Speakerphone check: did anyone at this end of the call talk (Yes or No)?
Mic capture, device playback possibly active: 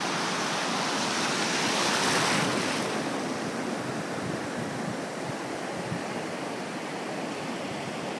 No